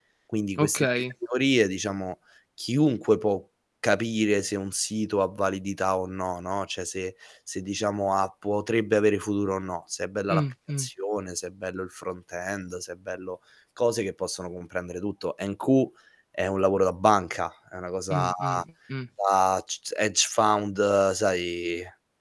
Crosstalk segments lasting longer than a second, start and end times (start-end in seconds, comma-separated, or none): none